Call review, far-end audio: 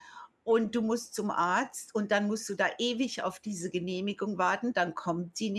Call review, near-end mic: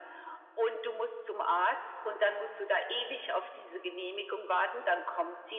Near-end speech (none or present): none